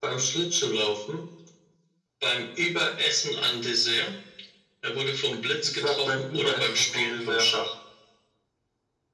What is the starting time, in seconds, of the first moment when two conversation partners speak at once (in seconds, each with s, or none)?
5.6 s